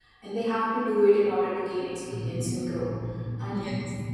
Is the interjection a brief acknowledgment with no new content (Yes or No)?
Yes